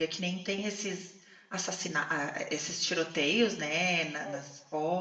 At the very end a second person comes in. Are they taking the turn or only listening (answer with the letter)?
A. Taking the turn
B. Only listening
B